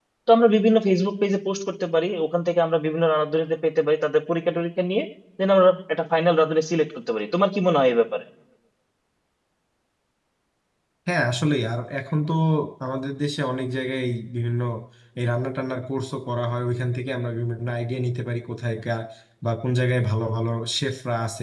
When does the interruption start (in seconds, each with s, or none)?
none